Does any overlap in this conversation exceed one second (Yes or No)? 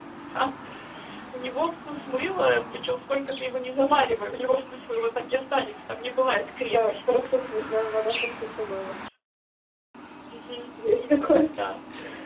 Yes